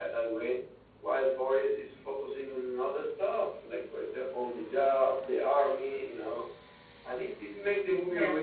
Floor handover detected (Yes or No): No